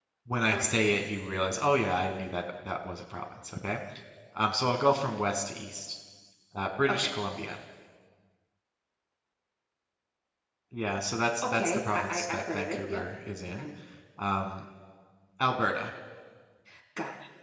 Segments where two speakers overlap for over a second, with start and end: 11.5-13.1

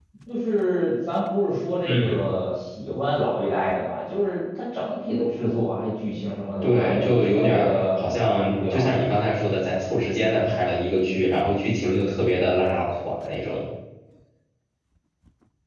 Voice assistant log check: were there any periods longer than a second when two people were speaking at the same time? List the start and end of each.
6.6-8.9

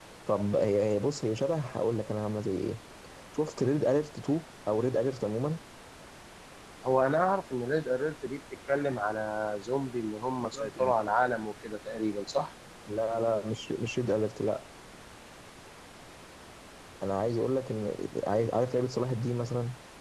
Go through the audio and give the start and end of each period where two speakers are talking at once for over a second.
none

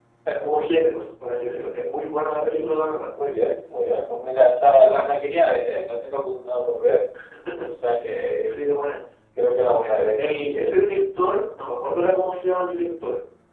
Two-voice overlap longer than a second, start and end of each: none

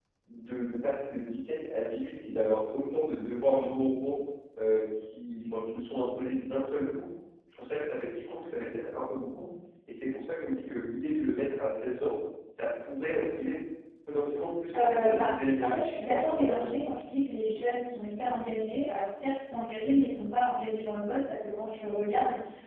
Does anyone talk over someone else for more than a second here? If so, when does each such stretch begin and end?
14.7-16.7

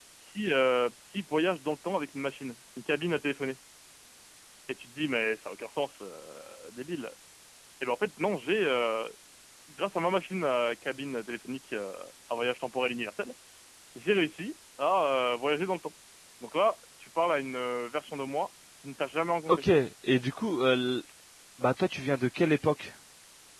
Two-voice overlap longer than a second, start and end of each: none

